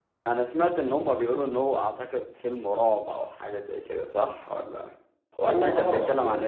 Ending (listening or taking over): taking over